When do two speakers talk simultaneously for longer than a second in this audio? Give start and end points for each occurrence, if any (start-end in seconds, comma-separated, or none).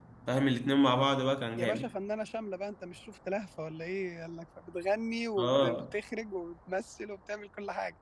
none